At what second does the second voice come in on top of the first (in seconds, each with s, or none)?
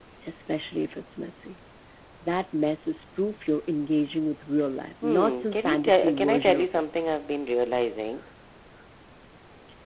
5.0 s